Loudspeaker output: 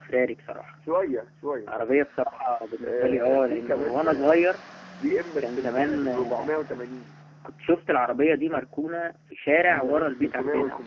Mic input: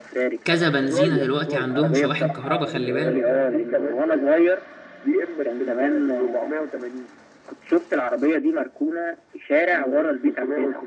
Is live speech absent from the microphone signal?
No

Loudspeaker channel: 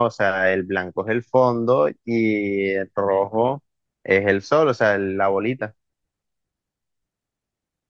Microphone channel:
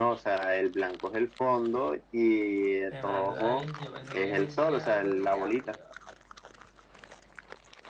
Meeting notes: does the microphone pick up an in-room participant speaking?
Yes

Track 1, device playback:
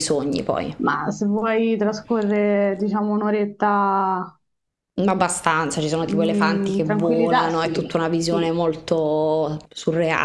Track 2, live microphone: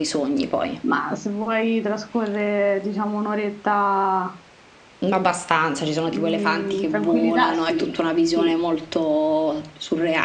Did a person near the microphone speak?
No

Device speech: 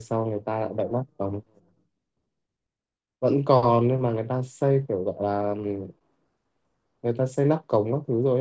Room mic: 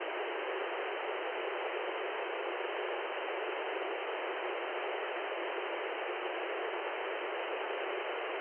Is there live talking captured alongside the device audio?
No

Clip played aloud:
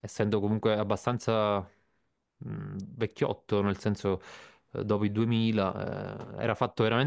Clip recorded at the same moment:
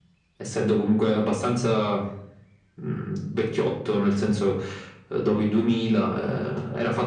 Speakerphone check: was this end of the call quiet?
Yes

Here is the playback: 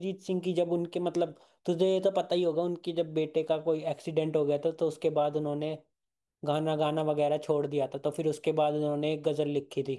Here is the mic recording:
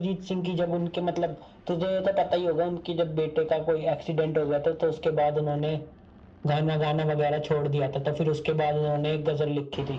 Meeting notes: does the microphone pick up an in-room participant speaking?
No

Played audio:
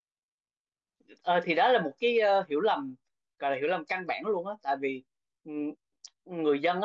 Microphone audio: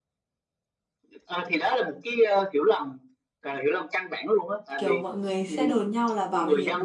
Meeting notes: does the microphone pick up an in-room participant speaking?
Yes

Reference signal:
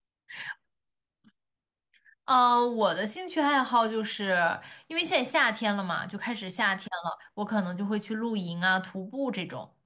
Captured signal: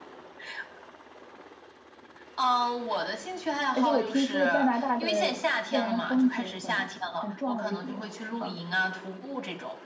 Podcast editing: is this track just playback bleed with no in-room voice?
No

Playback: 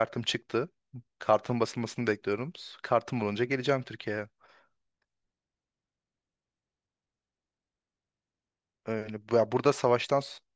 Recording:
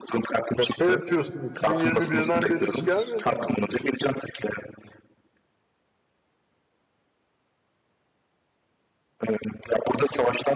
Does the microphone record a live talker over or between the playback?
Yes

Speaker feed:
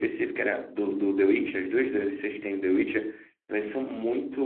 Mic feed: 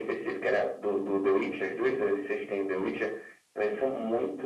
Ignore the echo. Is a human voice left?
No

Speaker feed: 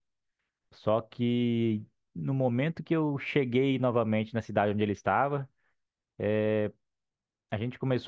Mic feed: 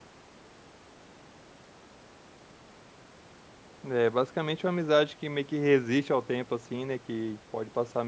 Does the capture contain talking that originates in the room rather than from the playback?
Yes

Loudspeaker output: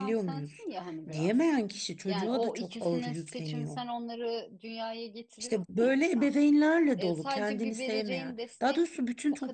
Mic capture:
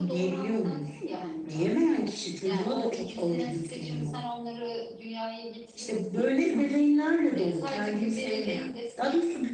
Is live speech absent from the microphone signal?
Yes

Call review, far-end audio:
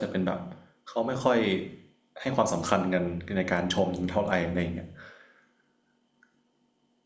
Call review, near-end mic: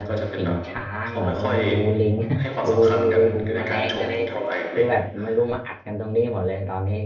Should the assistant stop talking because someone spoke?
Yes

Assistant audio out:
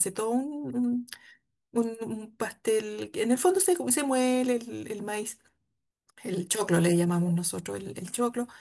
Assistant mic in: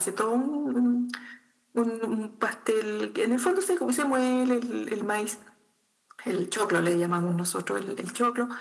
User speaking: No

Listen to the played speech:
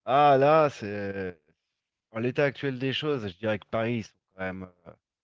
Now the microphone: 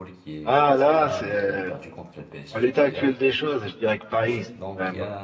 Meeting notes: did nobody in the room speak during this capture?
No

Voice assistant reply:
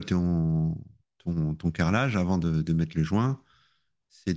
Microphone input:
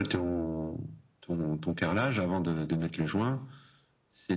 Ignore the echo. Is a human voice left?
No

